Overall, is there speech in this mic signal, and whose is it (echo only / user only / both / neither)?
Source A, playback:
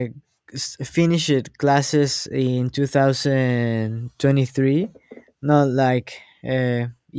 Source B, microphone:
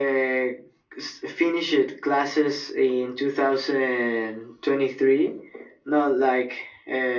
echo only